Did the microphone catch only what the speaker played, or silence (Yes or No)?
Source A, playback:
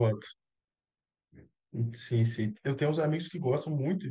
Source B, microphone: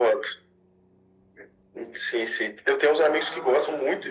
No